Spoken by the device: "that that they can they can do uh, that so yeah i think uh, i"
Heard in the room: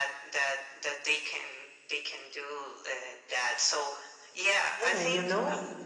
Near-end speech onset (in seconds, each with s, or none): 4.8 s